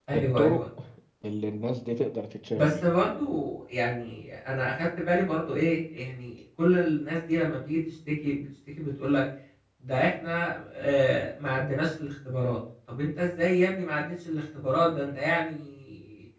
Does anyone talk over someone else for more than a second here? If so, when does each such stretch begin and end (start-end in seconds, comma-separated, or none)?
none